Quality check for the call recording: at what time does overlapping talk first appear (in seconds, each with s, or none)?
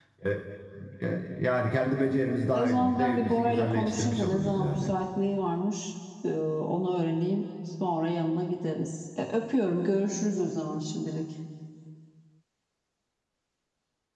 2.5 s